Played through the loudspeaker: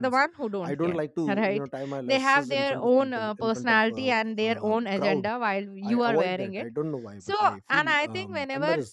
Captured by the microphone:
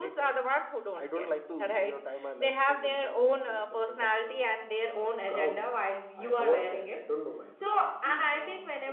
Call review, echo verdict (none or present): present